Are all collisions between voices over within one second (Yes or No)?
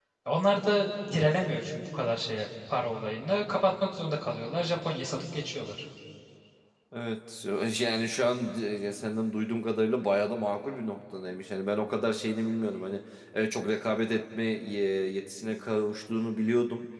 Yes